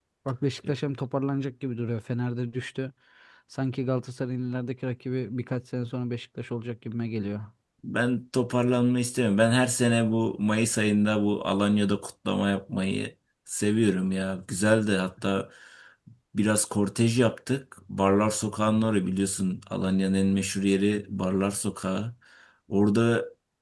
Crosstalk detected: No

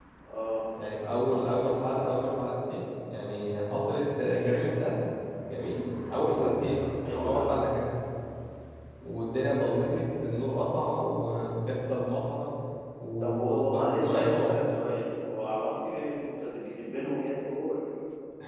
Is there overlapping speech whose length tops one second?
Yes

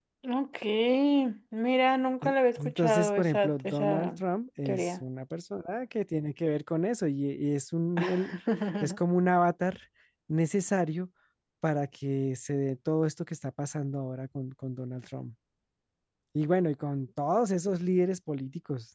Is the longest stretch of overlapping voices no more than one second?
No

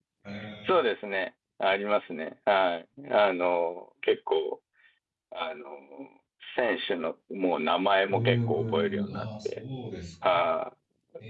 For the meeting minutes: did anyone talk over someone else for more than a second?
Yes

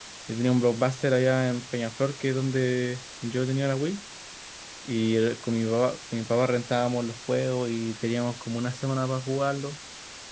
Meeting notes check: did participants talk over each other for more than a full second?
No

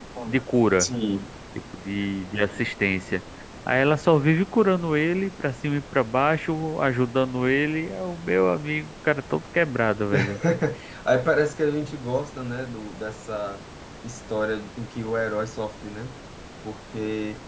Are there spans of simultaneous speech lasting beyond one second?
No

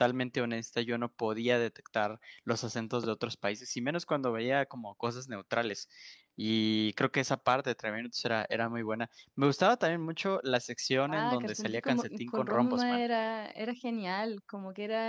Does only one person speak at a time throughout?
No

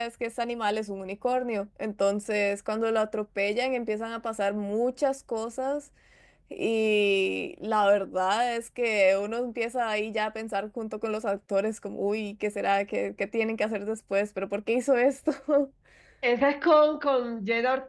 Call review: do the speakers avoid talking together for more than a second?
Yes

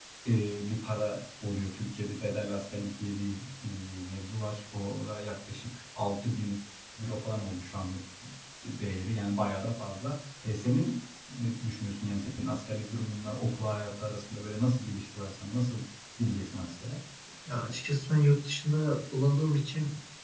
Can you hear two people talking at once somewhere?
No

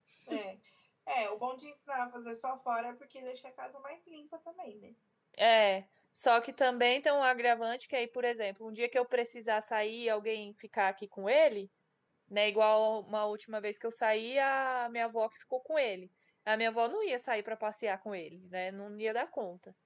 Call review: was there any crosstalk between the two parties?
No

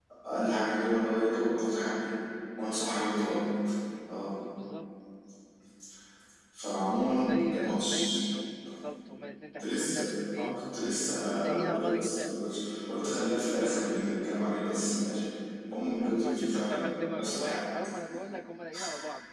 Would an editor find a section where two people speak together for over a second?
Yes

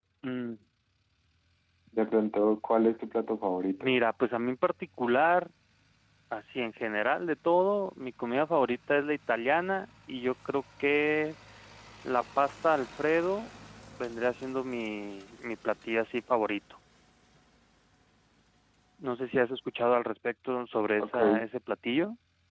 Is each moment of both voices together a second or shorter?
Yes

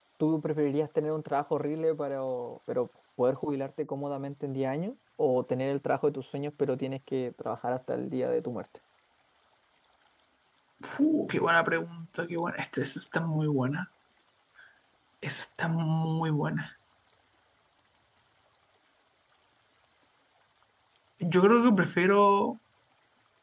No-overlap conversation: Yes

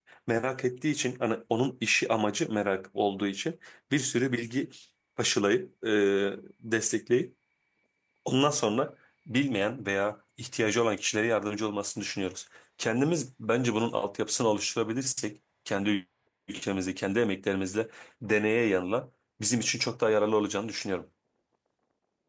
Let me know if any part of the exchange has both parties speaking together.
No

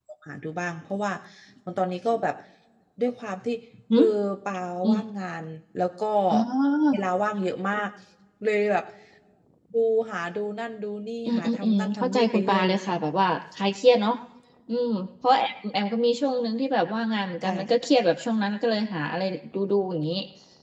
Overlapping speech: Yes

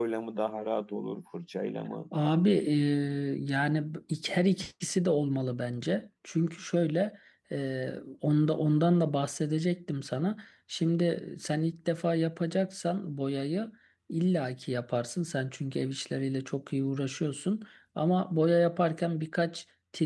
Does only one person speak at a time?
Yes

